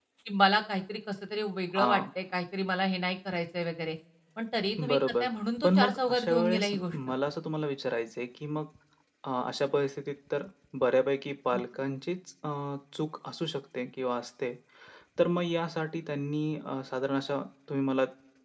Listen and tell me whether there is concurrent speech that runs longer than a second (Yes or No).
Yes